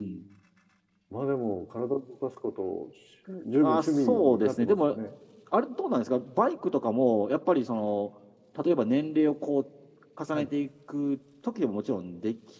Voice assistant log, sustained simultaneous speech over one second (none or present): present